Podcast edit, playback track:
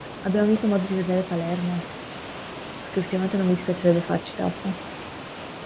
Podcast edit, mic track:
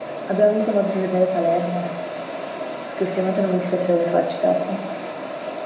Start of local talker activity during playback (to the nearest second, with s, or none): none